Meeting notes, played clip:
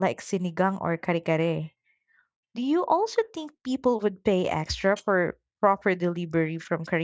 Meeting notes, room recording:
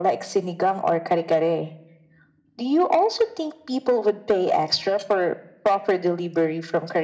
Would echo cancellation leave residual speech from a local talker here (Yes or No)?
No